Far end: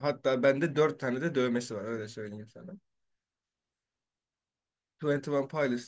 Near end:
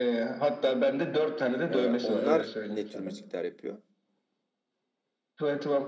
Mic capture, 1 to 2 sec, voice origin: both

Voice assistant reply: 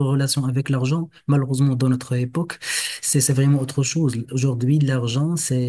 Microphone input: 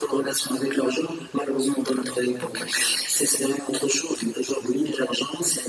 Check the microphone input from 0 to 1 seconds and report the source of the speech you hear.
echo only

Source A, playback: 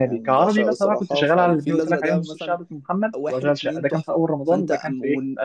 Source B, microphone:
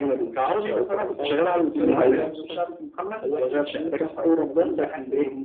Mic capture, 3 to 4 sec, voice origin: echo only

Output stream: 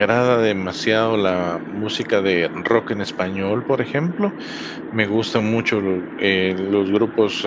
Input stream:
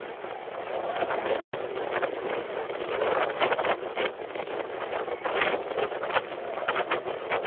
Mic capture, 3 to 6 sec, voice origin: neither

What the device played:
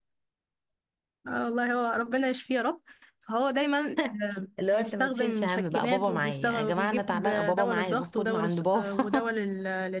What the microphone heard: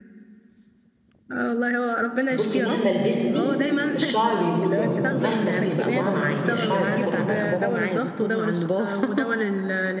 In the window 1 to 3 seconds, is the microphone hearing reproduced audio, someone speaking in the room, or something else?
both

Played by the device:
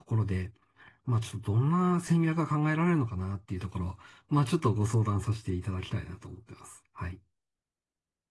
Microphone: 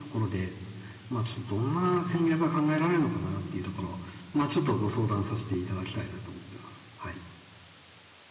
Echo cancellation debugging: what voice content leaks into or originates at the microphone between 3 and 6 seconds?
echo only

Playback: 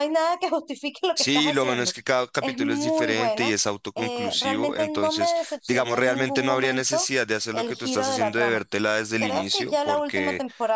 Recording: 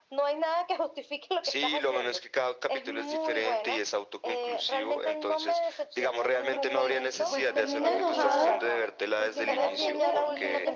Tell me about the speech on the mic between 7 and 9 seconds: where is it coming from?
both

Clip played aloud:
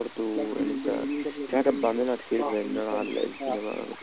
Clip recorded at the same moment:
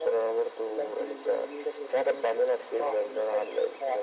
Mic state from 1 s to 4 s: echo only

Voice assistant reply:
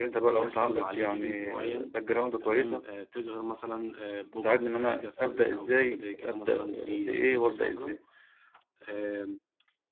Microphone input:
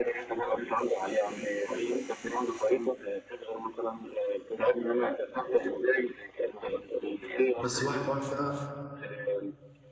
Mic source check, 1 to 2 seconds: echo only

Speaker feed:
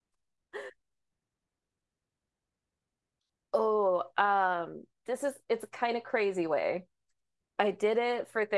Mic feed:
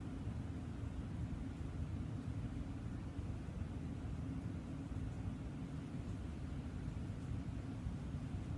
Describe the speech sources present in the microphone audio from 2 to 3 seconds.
neither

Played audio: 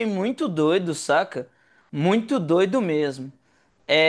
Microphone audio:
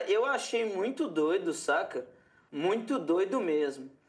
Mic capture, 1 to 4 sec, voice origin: echo only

